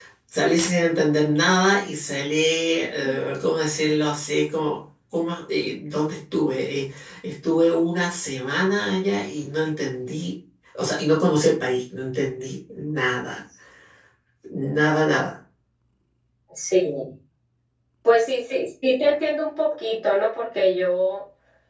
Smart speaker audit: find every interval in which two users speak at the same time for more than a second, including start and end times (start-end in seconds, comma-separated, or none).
none